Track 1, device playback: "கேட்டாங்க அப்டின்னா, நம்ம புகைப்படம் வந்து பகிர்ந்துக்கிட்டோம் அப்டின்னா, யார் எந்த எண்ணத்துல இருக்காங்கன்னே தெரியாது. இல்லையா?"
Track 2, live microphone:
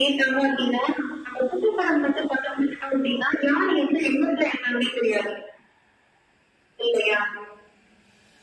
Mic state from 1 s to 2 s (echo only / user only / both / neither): echo only